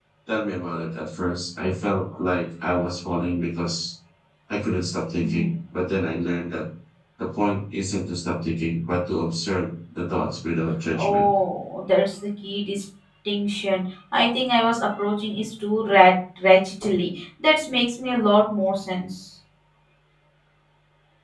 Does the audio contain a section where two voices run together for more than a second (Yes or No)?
No